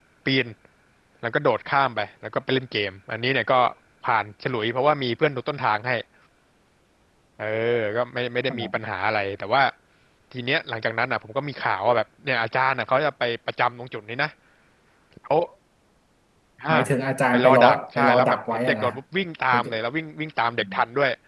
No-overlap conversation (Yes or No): No